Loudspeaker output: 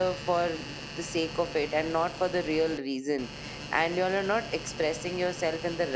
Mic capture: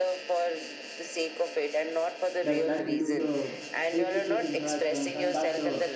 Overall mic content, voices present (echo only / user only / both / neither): both